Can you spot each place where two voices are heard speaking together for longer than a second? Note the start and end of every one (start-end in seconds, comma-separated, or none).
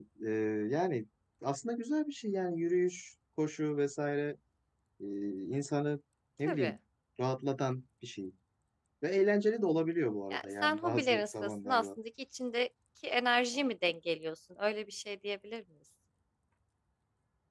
10.3-11.8